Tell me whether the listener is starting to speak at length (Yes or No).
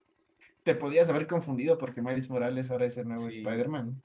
Yes